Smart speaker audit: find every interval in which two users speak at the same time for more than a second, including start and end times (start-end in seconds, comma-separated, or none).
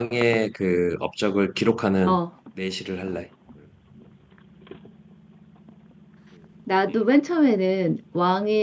none